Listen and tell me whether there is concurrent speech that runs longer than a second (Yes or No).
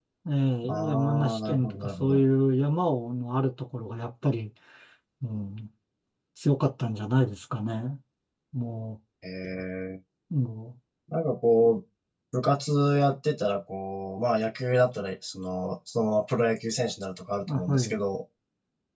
Yes